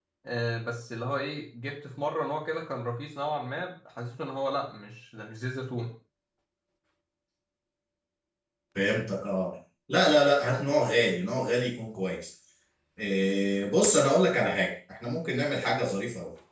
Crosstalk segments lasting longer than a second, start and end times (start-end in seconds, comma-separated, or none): none